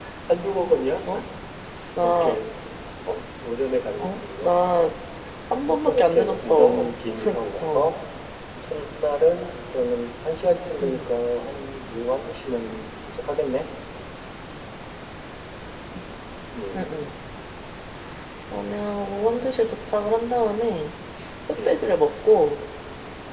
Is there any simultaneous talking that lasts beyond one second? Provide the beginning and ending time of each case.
5.7-6.9

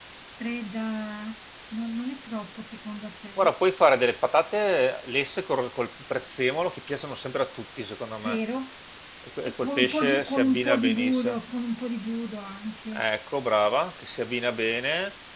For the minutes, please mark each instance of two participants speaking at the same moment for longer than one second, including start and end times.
9.4-11.4

